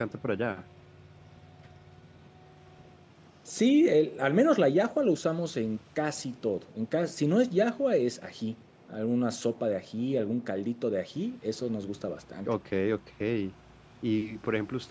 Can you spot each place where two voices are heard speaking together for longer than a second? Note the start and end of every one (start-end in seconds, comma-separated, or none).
none